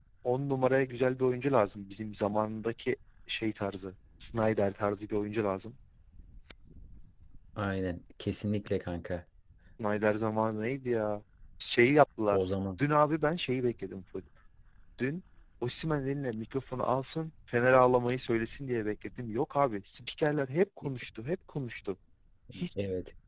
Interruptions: none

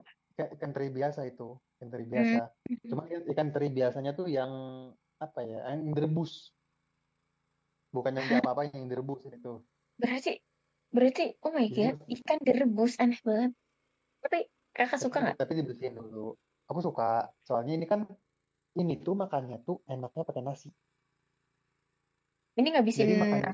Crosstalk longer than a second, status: none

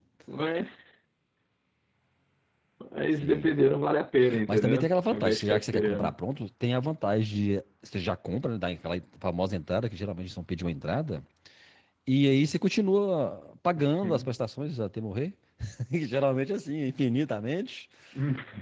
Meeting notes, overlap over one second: present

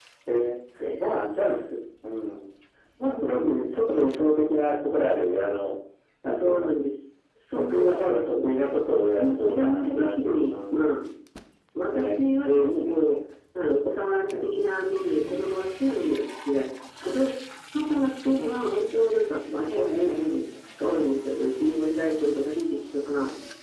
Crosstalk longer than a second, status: present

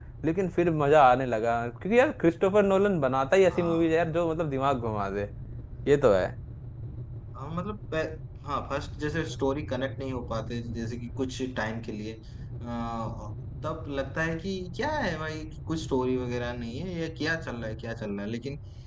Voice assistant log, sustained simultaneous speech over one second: none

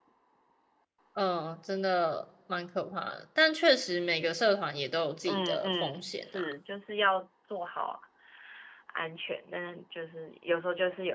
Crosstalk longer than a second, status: present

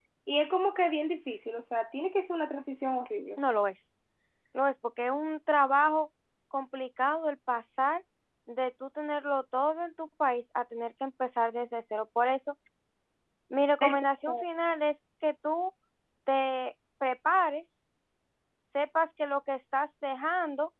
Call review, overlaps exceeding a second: none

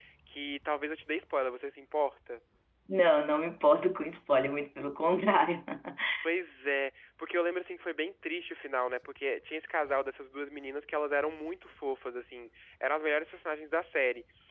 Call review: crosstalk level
none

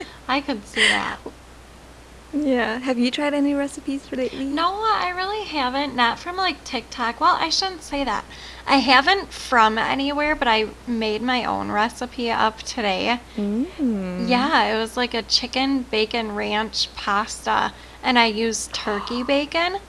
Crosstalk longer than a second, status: none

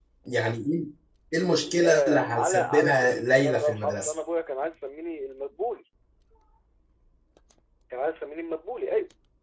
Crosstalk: present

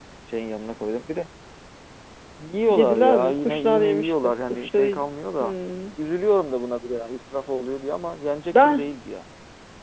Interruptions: present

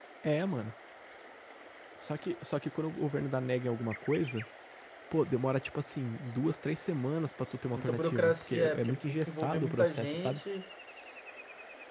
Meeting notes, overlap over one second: present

